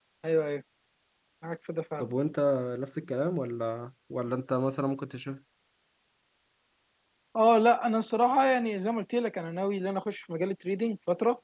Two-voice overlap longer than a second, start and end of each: none

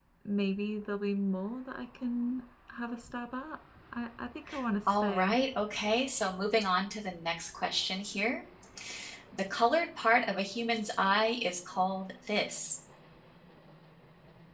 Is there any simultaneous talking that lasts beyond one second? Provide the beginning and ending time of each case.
none

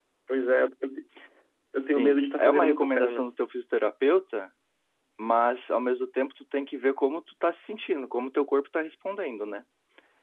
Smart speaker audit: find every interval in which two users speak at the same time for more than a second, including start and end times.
2.0-3.2

